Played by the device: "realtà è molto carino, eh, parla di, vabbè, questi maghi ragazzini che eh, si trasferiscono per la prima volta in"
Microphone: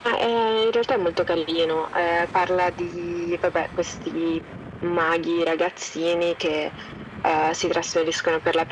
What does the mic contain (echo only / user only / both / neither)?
echo only